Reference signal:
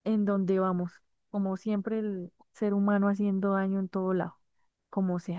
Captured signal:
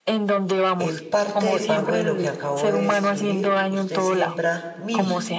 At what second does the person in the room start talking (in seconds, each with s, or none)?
0.8 s